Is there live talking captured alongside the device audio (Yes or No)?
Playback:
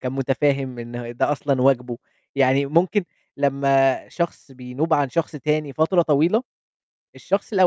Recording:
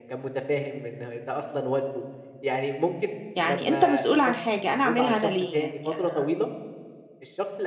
Yes